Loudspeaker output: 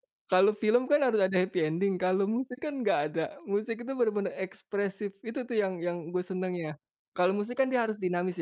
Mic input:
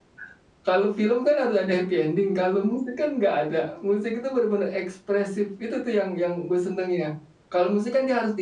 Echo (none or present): present